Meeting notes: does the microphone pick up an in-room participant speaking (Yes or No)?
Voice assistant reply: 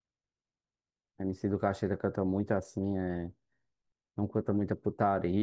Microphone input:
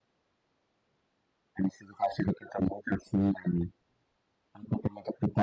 No